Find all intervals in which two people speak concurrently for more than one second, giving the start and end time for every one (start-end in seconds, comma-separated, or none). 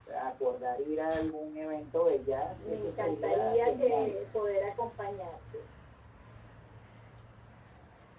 2.7-4.2